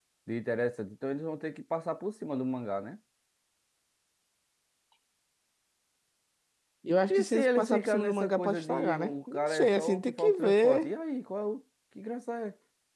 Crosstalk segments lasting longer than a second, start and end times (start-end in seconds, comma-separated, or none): 7.1-10.9